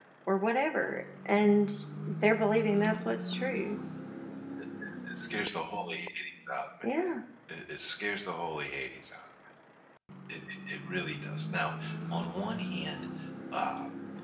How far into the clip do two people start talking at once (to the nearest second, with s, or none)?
none